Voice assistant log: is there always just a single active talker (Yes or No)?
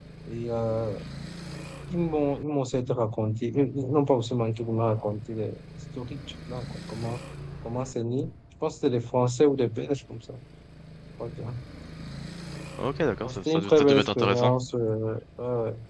No